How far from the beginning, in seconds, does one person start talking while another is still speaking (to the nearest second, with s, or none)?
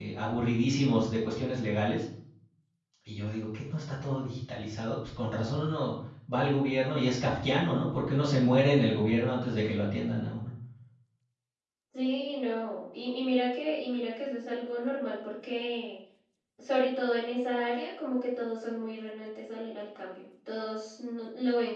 none